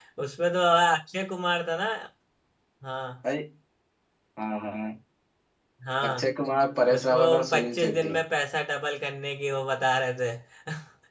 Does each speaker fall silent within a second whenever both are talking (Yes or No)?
No